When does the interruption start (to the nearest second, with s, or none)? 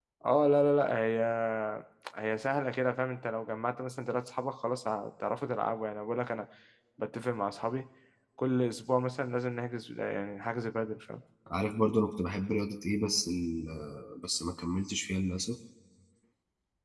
none